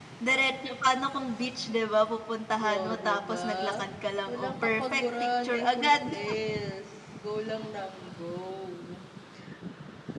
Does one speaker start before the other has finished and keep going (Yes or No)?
Yes